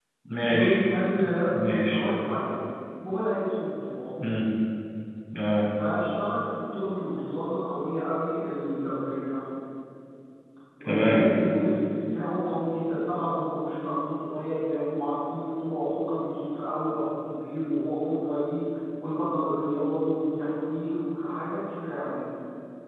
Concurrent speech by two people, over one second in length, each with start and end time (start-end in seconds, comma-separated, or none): none